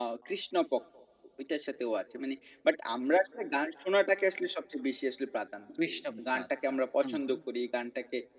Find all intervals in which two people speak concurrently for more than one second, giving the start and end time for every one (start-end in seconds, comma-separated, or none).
5.8-7.4